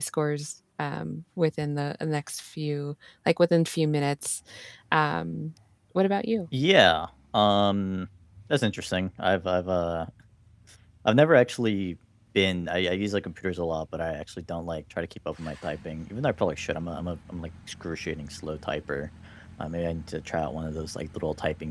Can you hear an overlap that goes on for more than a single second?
No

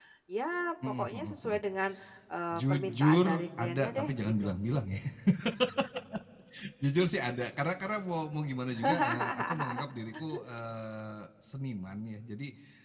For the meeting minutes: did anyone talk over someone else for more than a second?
Yes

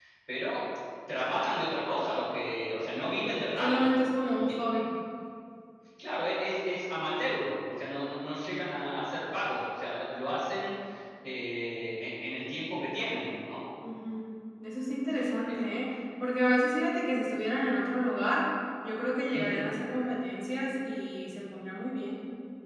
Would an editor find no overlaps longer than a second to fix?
Yes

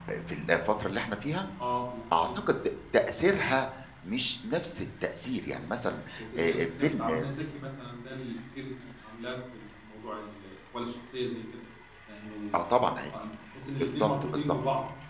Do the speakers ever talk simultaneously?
Yes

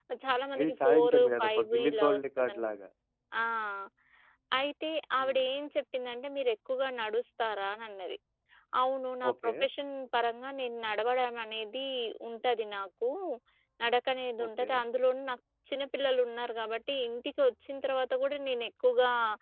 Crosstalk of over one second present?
Yes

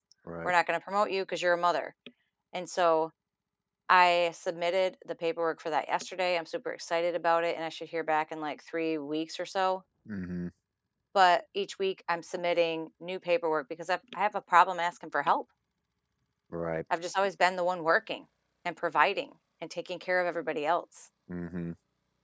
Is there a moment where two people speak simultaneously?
No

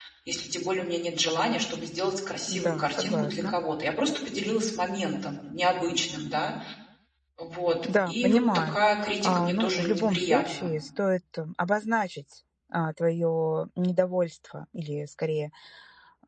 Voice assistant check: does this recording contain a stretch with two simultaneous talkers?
Yes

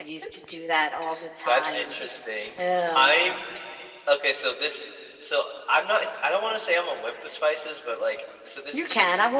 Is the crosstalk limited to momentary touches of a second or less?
Yes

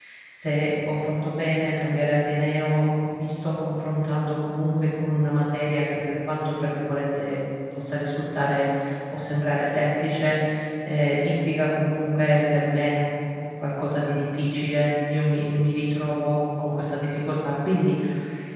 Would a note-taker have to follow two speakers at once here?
No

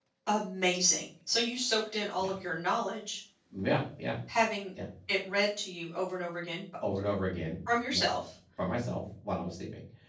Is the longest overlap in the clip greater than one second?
No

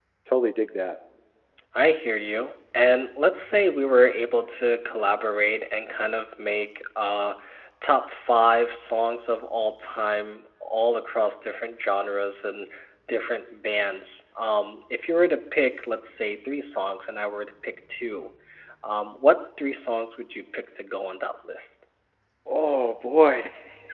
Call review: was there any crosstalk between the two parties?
No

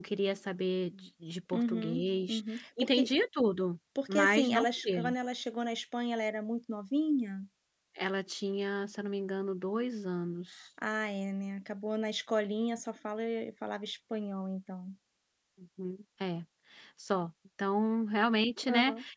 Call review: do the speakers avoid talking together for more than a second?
No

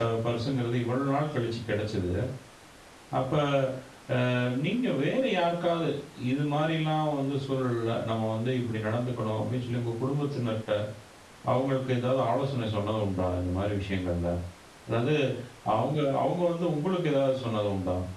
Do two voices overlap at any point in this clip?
No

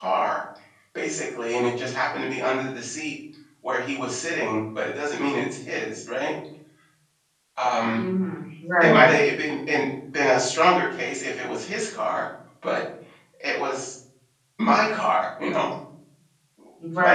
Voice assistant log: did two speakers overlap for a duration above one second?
No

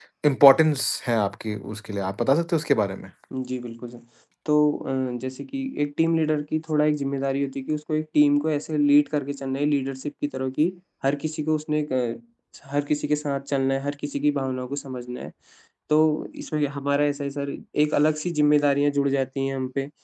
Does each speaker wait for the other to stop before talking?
Yes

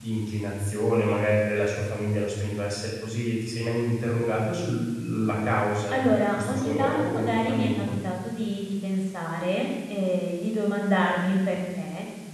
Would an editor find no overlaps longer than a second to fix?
No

